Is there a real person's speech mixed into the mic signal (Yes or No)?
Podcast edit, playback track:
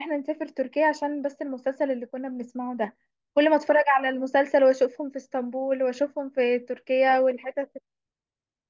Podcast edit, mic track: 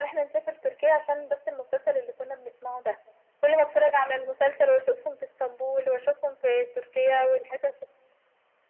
No